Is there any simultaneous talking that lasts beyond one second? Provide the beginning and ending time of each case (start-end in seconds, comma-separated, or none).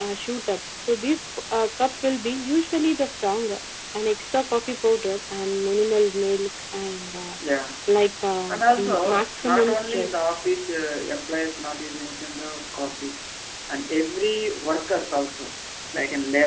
8.5-10.1